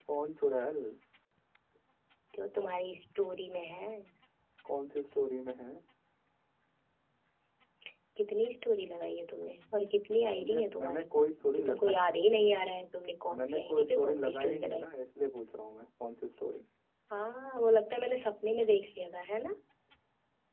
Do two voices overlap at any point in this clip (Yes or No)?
Yes